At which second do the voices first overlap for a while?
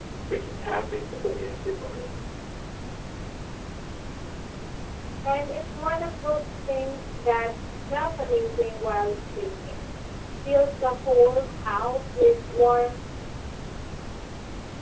none

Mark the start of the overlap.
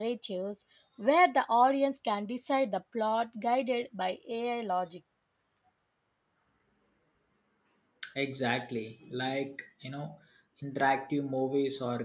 none

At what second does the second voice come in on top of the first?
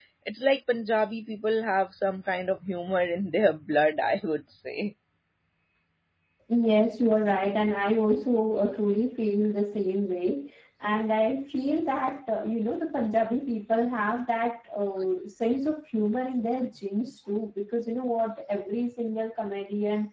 none

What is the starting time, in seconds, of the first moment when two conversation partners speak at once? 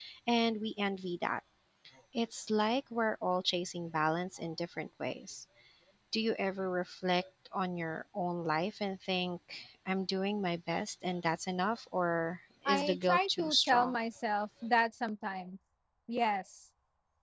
12.7 s

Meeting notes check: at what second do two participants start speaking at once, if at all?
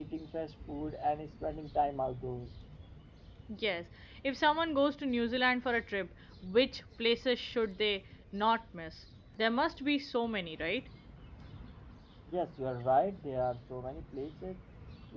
none

